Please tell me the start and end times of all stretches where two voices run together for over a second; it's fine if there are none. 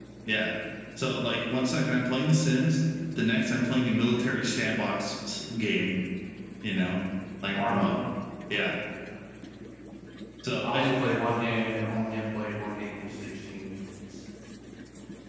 none

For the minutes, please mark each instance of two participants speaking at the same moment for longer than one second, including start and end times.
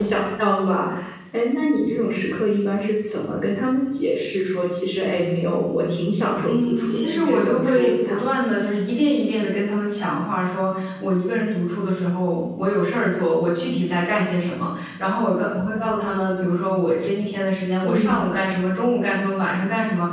6.4-8.4

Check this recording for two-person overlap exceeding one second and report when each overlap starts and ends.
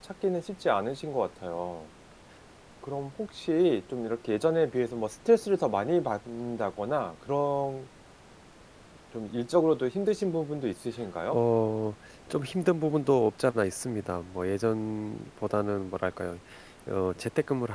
none

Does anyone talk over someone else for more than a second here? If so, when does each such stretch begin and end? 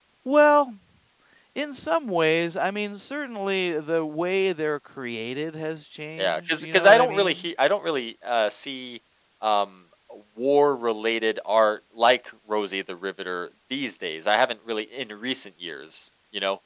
6.2-7.5

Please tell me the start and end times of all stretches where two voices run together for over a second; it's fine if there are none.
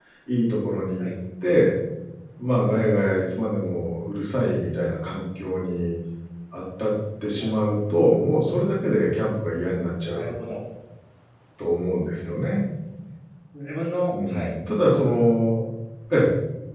none

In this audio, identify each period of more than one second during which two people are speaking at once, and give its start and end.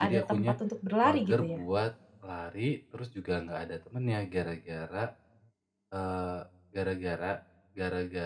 none

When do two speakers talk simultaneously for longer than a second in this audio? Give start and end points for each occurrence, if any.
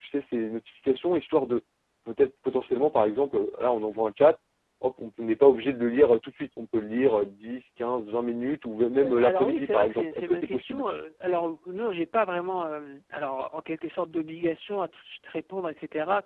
9.0-10.9

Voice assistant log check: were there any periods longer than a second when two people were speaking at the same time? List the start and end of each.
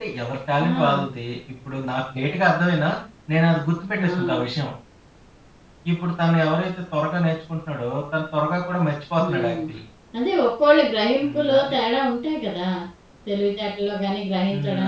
none

